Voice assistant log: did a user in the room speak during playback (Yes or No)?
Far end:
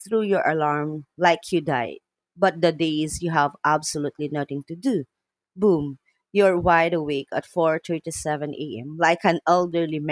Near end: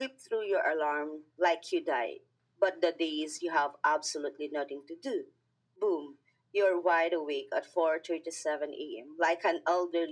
No